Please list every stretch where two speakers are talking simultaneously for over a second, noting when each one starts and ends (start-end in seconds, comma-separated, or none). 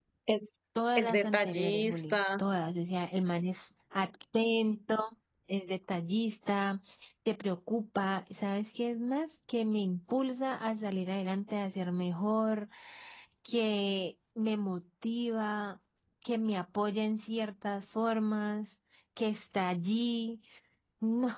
0.9-2.4